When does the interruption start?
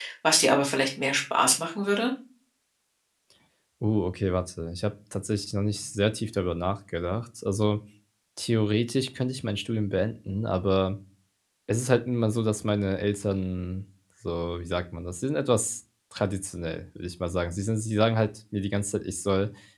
none

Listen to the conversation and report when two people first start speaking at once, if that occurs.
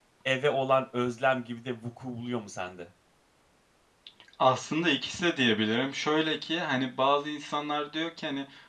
none

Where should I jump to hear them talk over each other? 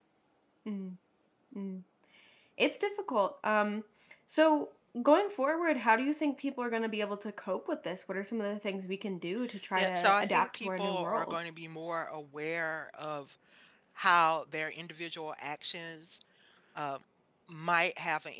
9.8 s

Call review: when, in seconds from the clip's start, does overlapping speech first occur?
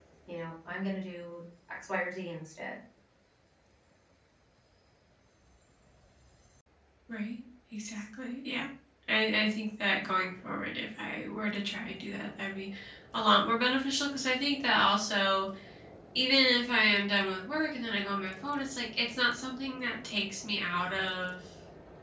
none

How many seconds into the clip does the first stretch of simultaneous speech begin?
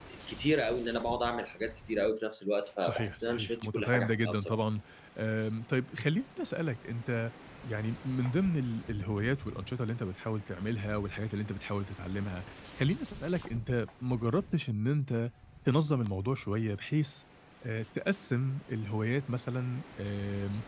2.8 s

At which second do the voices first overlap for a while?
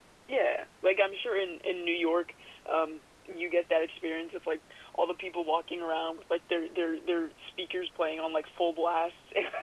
none

